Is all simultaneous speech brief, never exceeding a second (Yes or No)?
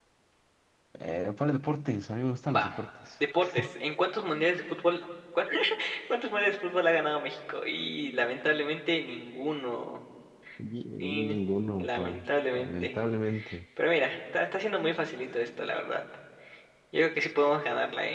Yes